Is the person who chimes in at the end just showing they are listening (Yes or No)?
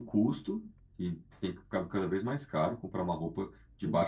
Yes